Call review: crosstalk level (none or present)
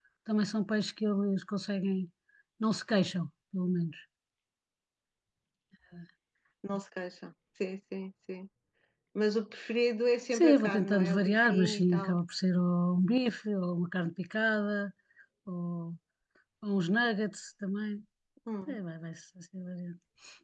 present